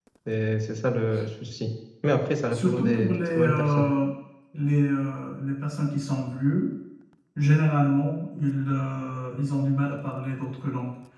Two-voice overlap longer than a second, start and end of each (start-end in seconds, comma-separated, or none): 2.5-3.9